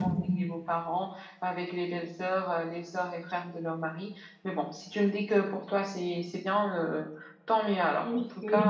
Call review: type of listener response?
taking over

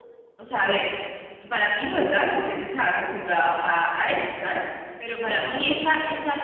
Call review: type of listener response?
listening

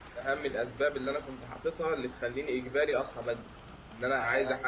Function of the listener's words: listening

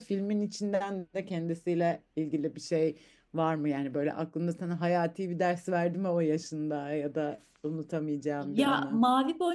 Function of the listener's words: taking over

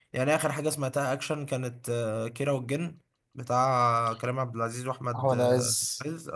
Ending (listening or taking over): listening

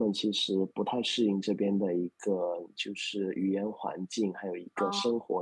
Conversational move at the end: listening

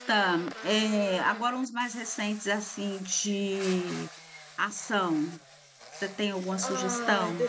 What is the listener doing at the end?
taking over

